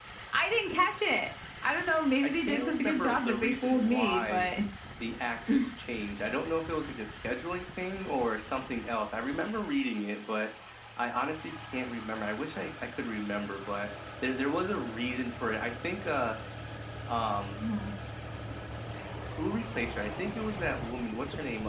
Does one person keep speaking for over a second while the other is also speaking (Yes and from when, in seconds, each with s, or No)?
Yes, from 2.2 s